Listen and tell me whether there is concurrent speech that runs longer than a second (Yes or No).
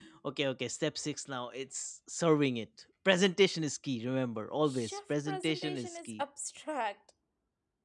Yes